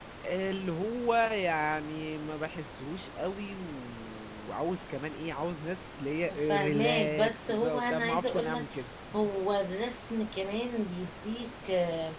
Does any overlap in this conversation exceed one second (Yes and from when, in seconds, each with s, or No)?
Yes, from 6.3 s